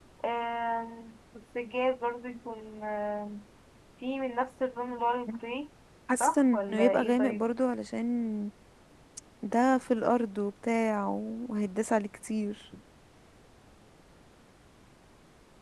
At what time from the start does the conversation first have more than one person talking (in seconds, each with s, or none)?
6.2 s